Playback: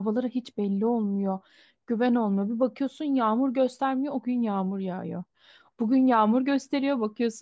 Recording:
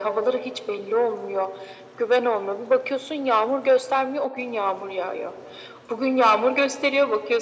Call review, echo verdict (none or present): present